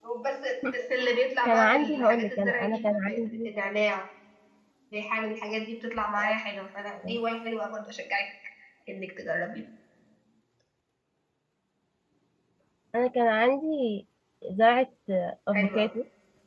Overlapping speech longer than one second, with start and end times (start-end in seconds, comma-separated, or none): 1.4-3.5